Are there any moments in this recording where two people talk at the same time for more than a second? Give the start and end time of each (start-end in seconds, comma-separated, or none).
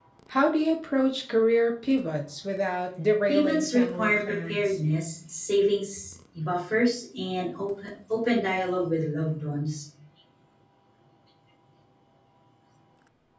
3.3-4.8